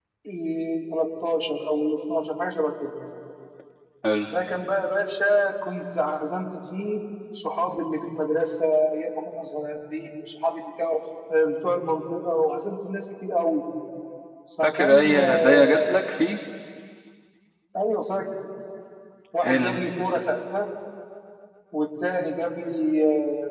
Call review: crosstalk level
present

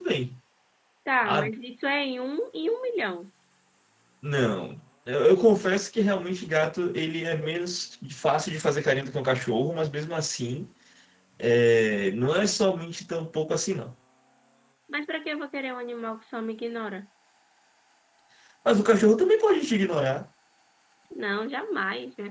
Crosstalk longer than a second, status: none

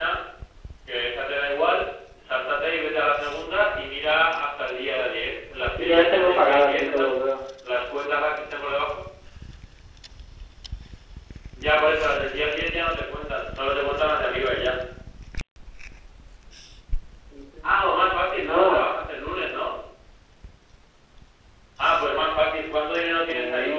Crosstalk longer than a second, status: present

